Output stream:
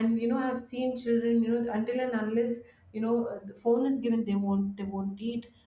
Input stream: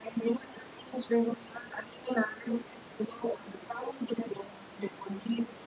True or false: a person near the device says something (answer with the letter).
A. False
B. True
A